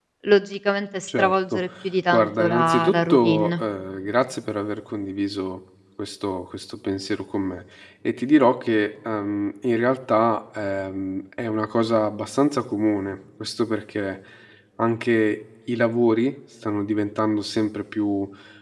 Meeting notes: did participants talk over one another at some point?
Yes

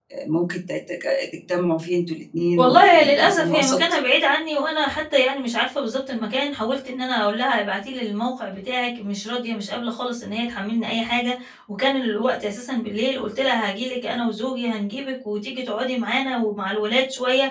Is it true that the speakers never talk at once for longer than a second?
No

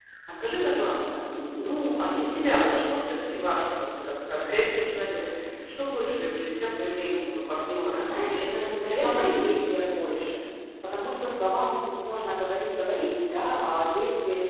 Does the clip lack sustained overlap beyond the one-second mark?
No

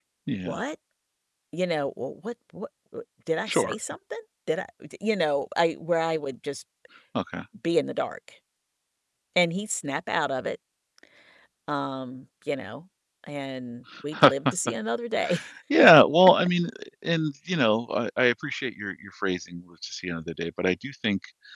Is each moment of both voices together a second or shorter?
Yes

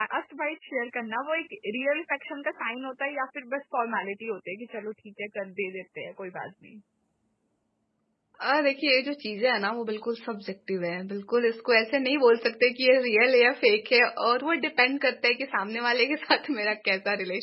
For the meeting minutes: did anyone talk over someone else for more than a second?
No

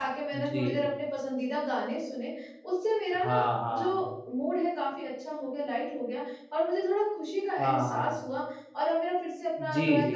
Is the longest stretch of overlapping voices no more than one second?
Yes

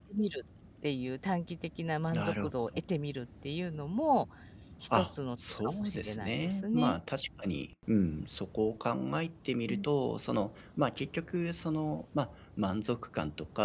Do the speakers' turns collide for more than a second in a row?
Yes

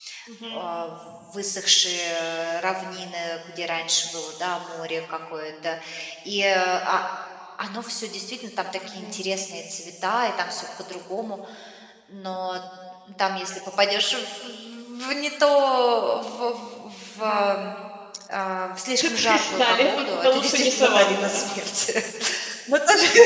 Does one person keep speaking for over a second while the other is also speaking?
Yes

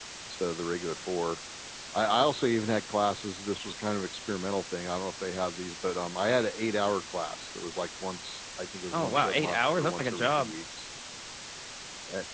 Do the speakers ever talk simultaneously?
Yes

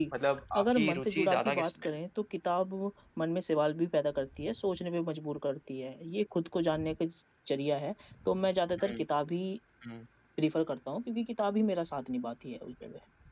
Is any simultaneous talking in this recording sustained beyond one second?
Yes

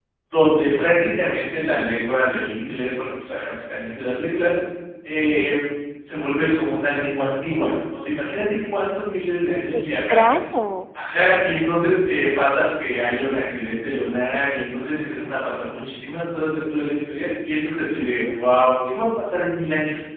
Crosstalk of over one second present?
No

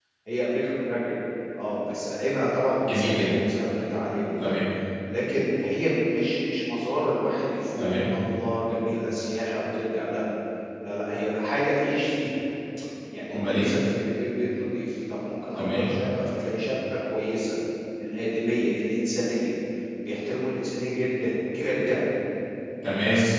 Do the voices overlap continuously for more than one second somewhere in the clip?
No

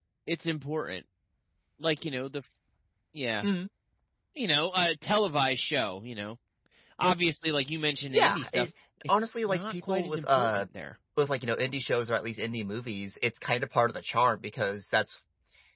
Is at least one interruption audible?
Yes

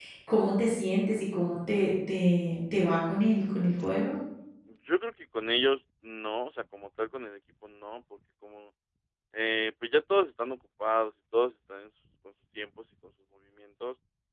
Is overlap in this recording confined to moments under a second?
Yes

